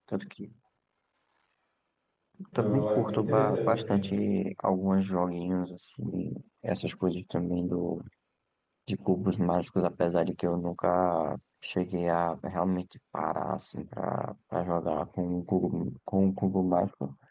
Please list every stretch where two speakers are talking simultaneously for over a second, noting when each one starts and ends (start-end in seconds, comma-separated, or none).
2.5-4.1